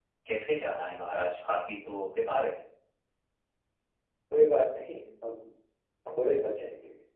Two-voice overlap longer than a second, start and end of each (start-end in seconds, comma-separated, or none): none